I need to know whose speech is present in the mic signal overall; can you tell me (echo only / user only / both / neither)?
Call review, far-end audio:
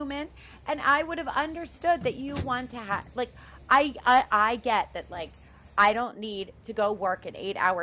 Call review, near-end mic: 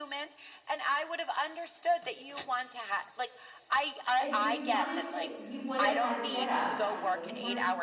both